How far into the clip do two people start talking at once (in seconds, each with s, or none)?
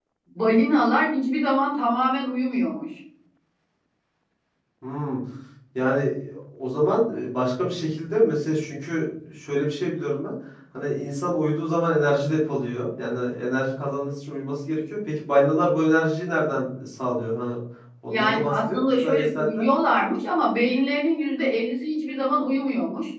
18.1 s